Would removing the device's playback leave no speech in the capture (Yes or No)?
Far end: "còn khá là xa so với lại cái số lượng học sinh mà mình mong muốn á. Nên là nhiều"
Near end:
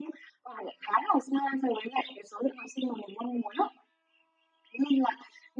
Yes